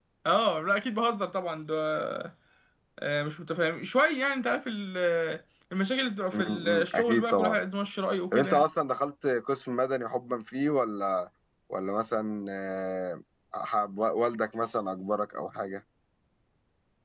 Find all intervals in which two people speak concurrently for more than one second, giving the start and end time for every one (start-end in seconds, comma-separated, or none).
6.3-7.6